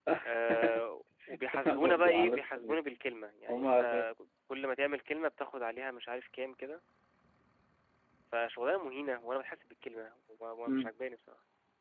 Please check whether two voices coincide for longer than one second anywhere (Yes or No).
Yes